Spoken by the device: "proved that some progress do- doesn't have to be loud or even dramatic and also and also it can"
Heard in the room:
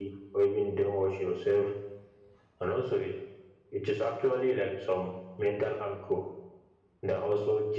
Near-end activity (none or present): present